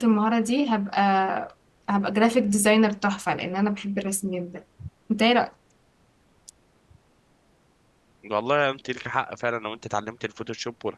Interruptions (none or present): none